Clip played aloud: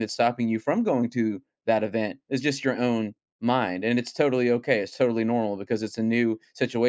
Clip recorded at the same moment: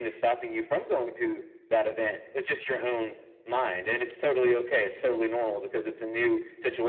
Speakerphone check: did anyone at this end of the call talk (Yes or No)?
No